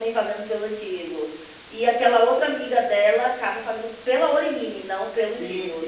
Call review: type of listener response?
taking over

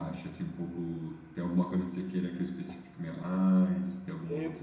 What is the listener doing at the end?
taking over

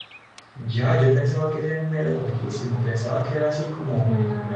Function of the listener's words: listening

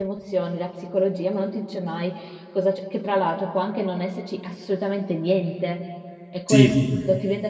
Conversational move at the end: listening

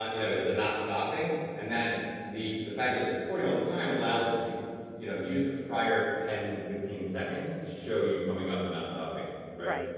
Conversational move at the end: listening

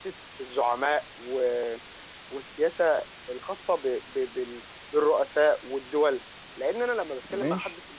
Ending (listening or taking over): listening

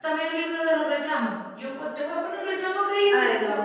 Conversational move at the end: taking over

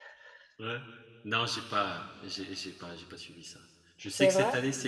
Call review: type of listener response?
listening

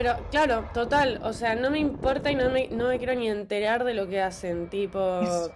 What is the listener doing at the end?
listening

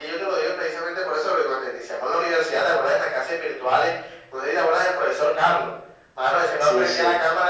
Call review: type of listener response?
listening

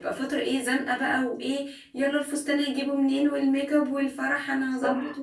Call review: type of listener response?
listening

